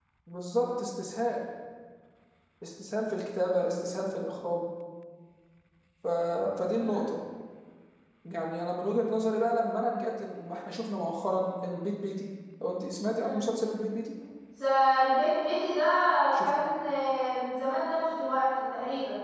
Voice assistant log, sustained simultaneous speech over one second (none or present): none